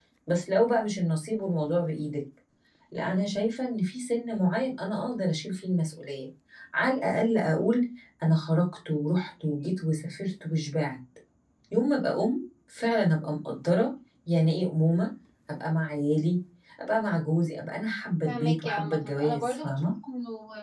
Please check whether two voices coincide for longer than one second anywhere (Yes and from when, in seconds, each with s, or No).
Yes, from 18.2 s